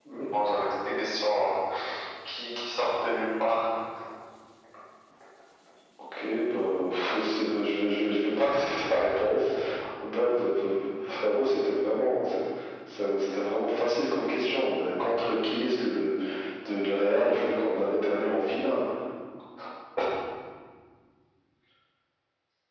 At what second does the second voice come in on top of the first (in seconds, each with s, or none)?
none